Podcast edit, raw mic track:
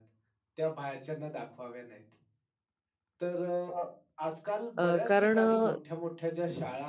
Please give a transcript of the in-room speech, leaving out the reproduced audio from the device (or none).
अ, कारण अ,